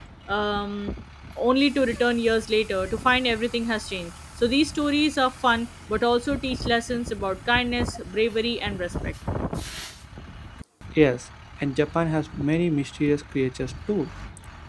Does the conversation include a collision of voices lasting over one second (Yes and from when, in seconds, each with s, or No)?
No